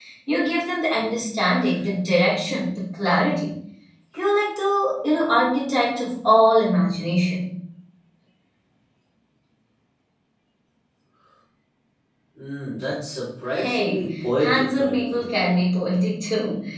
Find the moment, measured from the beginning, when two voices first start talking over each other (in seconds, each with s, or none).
13.5 s